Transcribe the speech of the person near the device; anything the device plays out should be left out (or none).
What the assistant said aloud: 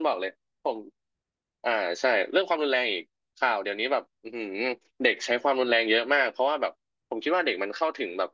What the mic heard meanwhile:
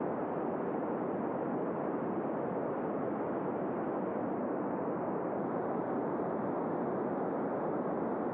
none